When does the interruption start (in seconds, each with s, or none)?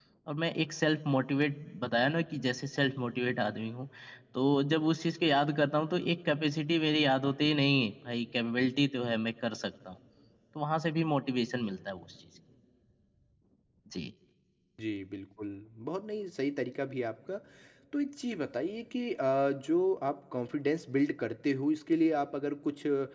none